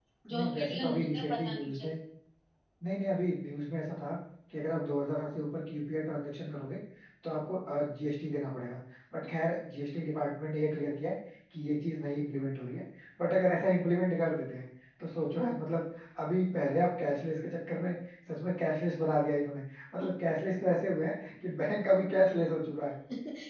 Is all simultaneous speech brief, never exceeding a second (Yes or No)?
No